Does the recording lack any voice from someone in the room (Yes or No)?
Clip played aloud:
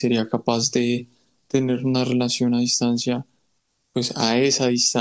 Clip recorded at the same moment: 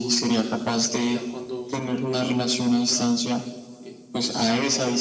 No